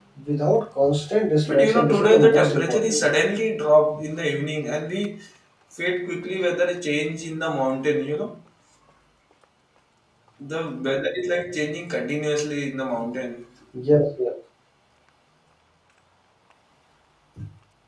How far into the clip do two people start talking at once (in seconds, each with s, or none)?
1.5 s